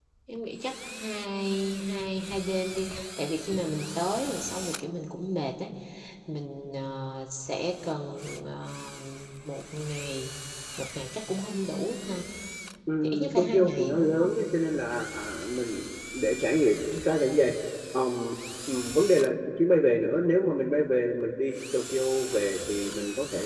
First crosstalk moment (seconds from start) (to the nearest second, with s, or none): 13 s